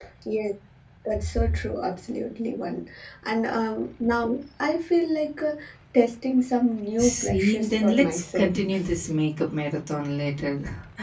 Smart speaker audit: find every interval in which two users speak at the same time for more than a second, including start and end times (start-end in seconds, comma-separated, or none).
7.0-9.1